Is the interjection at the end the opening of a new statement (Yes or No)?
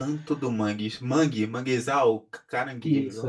Yes